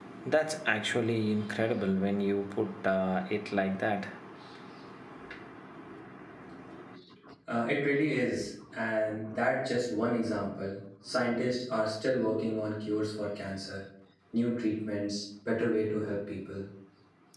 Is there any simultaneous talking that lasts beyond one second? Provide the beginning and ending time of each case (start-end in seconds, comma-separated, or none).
none